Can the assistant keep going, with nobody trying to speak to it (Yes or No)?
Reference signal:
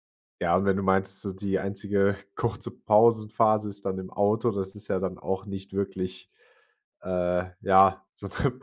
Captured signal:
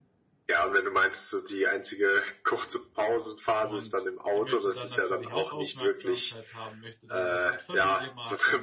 No